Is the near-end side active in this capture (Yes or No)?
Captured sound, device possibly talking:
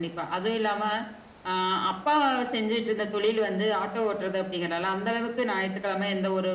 No